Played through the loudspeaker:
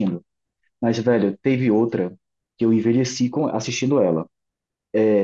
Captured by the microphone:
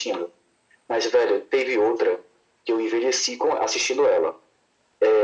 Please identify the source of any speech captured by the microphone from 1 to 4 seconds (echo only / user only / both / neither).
echo only